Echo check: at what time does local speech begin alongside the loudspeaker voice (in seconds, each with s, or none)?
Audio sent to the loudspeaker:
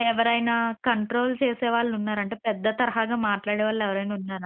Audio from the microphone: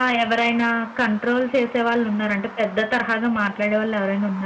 none